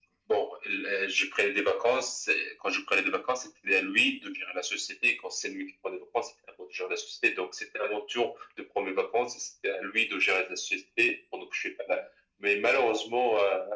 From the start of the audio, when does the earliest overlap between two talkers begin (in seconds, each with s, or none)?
none